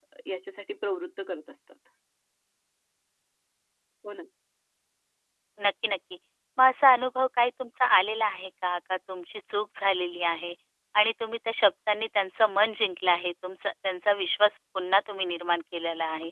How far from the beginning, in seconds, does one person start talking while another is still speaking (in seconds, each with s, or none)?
none